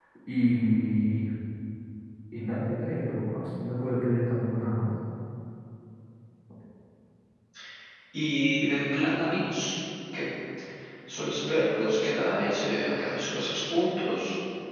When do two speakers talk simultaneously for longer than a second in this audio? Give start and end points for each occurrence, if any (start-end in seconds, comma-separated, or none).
none